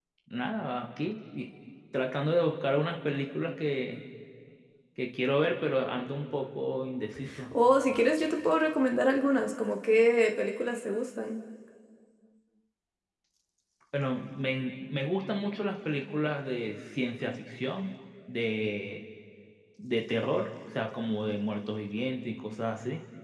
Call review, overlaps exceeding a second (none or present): none